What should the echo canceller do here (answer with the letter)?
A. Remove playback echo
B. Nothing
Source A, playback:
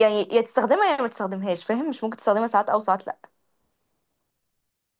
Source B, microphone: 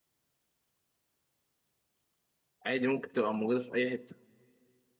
B